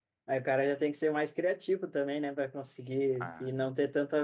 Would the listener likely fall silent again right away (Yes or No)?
Yes